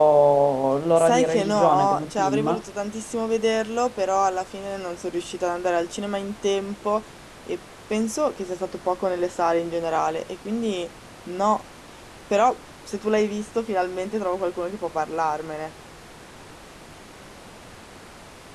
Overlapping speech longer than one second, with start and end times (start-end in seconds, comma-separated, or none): 1.0-2.6